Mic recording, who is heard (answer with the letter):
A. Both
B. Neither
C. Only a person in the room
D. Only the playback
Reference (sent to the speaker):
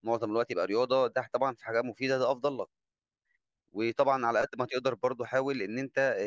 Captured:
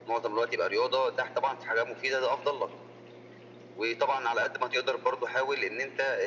D